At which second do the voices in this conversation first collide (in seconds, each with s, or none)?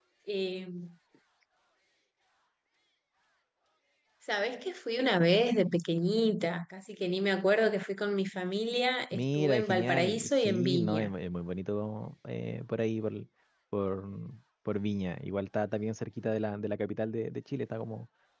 9.1 s